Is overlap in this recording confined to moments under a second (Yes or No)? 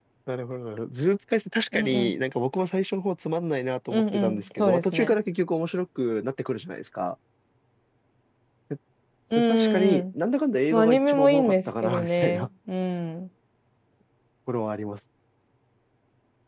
No